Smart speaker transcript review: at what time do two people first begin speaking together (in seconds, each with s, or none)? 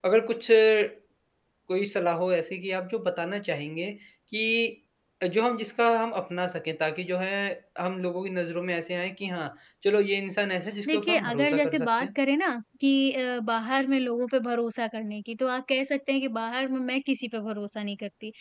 10.8 s